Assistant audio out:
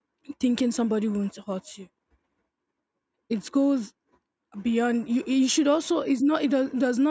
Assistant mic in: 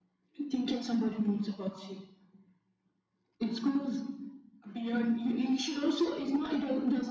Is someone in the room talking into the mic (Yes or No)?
No